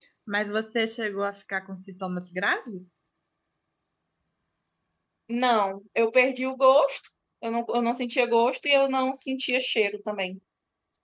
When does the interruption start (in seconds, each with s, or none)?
none